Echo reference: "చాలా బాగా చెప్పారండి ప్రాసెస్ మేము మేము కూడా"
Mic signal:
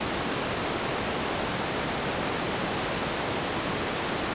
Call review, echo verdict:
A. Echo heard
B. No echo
B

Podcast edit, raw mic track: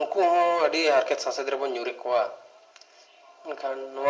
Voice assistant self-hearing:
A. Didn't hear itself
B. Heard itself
B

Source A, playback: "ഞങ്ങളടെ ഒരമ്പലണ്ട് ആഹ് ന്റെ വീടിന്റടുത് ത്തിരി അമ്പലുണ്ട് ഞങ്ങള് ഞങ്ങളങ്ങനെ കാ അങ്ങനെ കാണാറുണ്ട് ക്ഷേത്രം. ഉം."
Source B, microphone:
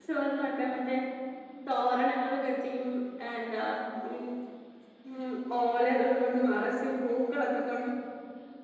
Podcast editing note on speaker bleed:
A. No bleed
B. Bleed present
A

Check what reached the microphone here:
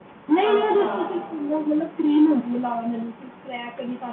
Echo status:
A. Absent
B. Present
B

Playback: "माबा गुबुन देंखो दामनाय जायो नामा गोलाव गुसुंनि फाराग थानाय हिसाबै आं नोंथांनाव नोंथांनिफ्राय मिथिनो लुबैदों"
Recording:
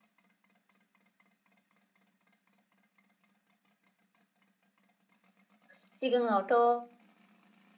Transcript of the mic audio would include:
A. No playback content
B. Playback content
A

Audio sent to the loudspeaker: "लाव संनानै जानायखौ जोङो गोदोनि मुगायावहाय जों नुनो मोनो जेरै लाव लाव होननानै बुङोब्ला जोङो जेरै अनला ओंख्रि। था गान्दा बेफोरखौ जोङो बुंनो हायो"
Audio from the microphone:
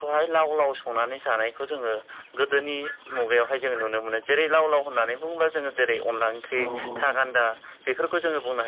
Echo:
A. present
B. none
A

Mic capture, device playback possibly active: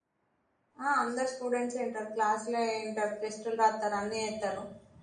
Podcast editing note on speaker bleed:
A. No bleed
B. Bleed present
A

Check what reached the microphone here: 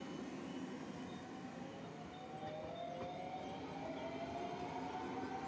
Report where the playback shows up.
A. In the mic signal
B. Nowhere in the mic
B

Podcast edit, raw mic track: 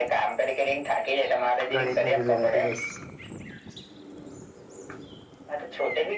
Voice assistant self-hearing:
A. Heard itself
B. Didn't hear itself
A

